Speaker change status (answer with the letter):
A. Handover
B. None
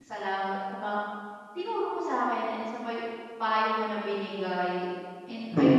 A